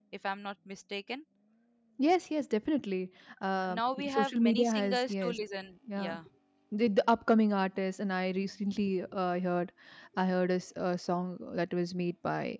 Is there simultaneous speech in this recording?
Yes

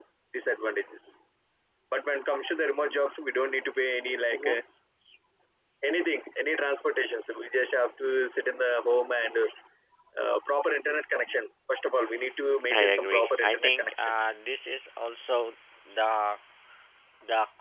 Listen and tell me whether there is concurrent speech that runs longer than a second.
Yes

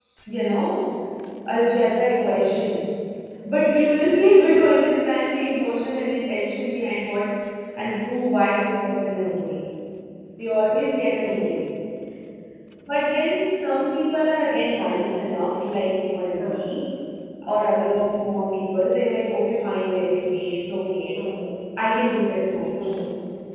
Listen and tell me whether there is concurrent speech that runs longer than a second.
No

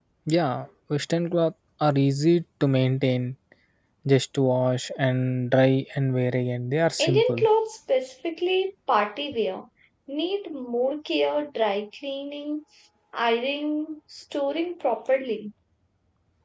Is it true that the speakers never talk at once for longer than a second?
Yes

